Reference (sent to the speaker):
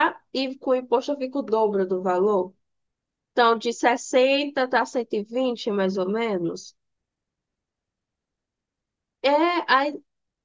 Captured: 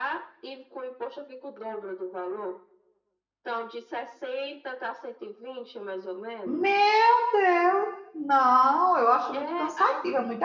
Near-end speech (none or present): present